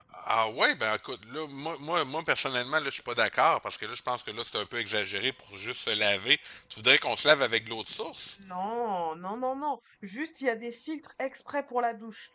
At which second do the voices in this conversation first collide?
none

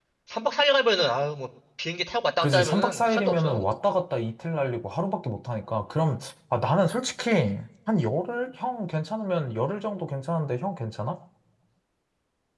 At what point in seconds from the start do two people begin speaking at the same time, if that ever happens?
2.4 s

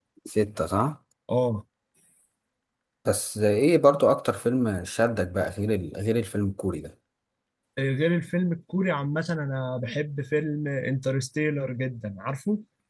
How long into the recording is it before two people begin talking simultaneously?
none

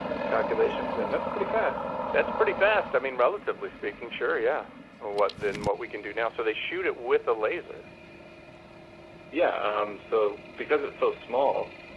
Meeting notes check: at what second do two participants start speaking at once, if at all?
none

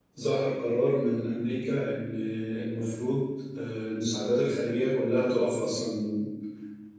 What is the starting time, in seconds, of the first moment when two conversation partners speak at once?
none

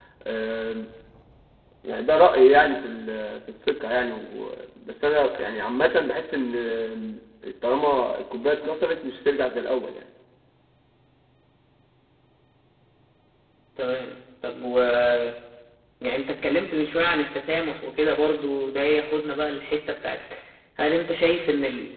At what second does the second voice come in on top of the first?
none

